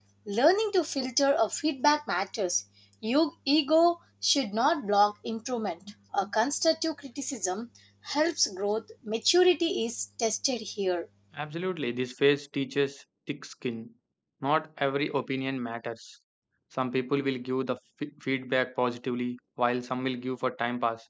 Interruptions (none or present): none